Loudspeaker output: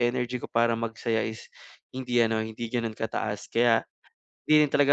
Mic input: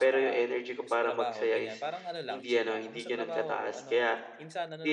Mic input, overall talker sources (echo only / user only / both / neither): both